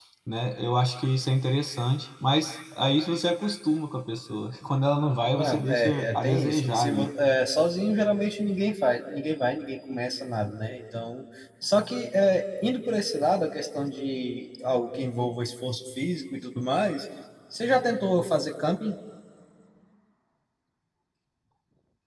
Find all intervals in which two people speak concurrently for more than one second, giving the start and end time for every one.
5.4-7.1

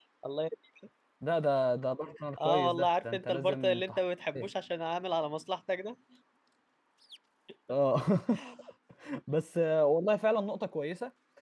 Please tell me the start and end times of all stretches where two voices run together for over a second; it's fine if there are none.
2.4-4.0

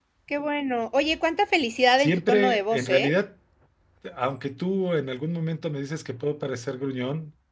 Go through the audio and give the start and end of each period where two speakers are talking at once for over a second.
1.8-3.1

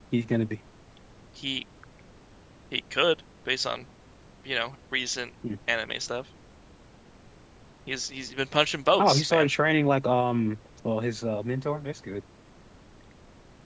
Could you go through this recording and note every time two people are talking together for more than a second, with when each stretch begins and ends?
none

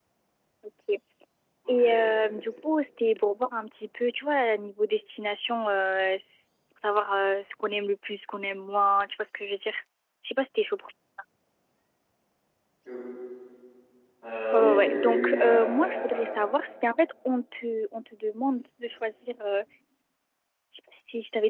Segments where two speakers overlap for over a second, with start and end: 14.5-16.3

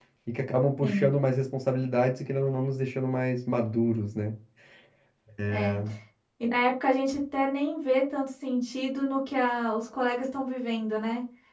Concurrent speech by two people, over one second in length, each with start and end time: none

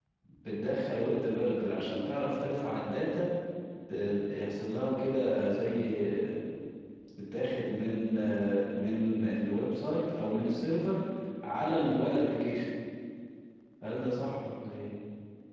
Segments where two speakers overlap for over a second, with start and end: none

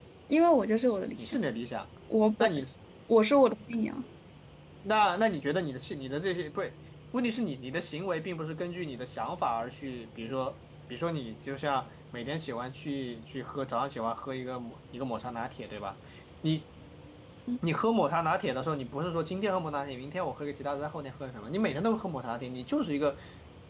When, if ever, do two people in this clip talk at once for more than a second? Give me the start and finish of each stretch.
none

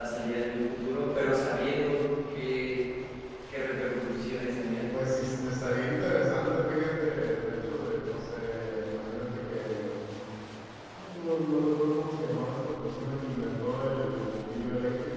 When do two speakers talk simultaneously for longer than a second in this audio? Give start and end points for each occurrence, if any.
none

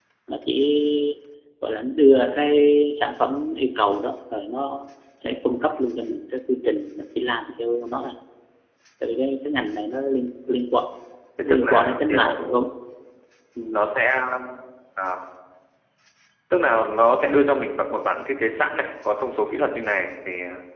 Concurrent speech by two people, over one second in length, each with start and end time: 11.4-12.7

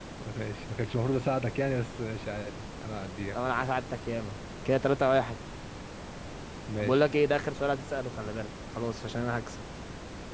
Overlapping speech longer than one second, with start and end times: none

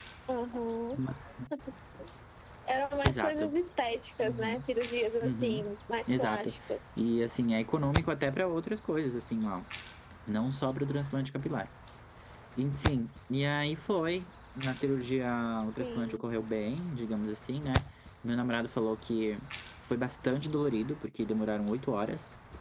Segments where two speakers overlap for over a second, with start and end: none

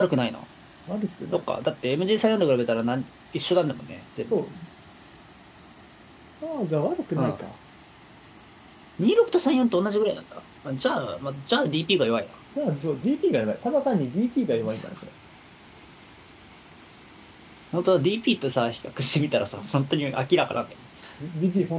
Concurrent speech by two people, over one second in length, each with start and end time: none

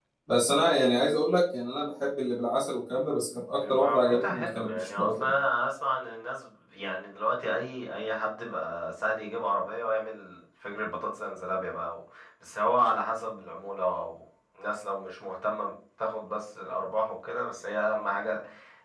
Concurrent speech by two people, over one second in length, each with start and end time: 3.7-5.3

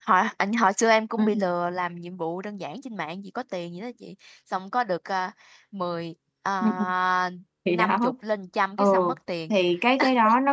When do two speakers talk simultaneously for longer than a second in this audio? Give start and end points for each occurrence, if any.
none

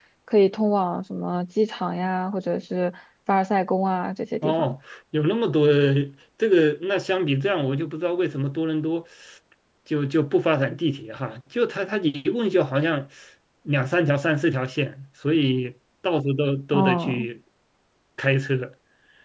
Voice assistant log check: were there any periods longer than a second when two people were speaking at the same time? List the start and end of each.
none

